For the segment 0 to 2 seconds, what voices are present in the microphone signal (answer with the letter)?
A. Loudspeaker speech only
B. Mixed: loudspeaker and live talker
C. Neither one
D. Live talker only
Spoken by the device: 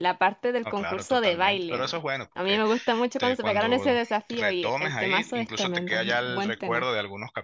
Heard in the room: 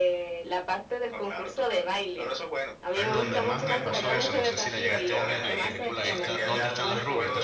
A